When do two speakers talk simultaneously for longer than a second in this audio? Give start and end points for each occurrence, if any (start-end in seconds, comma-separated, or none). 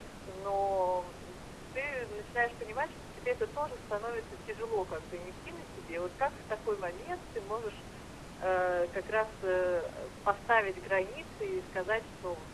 none